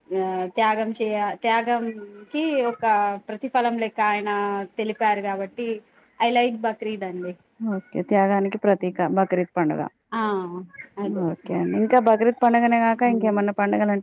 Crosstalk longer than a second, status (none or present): none